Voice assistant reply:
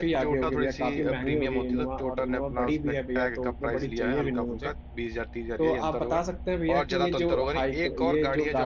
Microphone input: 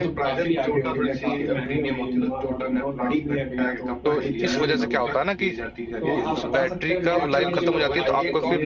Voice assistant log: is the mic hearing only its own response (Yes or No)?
No